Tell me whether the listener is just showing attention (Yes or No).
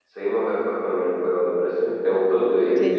No